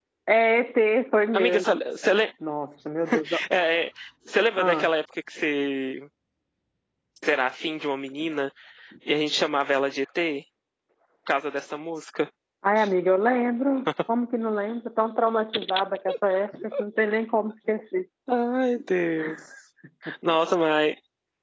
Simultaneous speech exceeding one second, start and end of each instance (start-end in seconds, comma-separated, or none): none